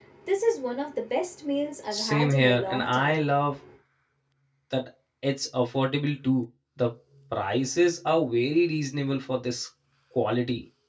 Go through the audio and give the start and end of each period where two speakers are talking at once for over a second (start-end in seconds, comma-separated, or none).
1.9-3.3